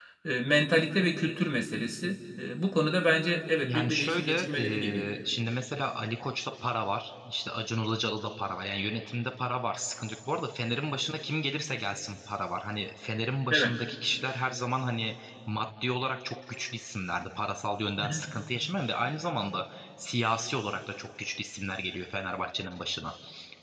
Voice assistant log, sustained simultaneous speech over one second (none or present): present